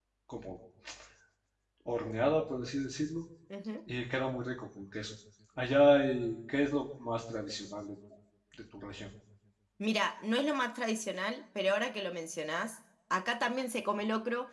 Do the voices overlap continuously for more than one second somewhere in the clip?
No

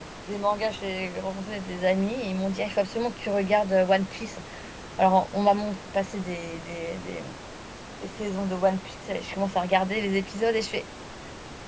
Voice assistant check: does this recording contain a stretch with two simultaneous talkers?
No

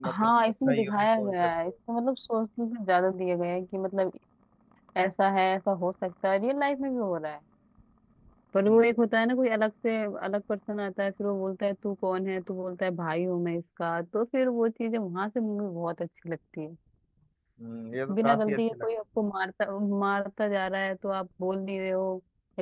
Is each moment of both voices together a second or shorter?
No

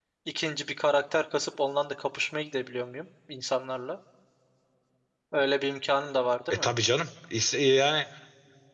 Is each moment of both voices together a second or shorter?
Yes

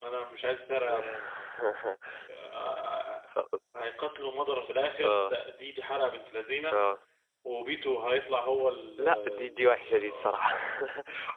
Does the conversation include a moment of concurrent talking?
Yes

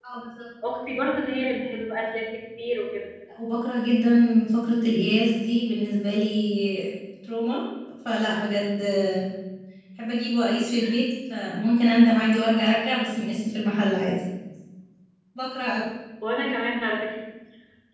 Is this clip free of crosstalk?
Yes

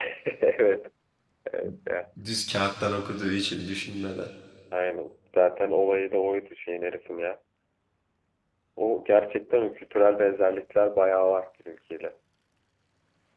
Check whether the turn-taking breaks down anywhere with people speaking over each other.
No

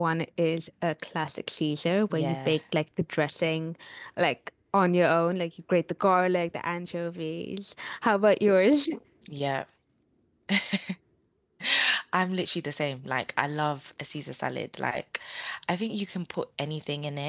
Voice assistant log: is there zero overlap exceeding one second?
Yes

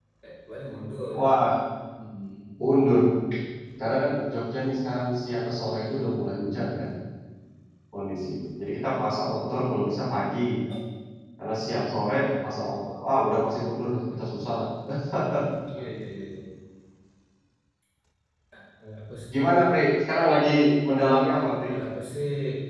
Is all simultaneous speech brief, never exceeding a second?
Yes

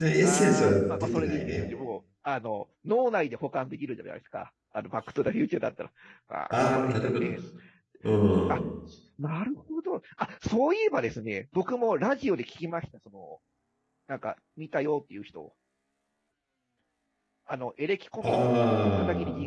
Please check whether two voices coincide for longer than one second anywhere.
Yes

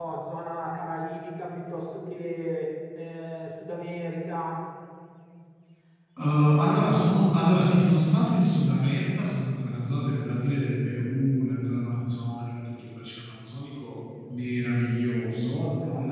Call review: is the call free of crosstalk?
Yes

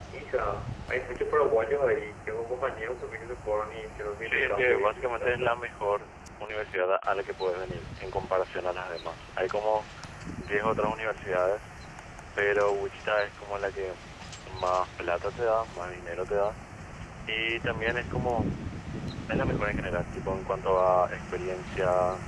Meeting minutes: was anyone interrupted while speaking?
Yes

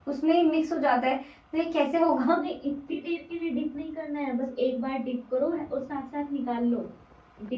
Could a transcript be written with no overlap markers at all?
Yes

